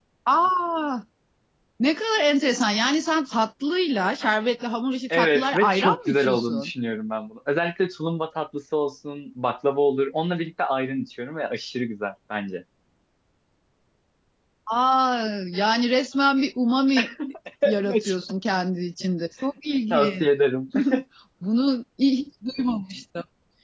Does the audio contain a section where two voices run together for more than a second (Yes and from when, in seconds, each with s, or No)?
Yes, from 5.1 s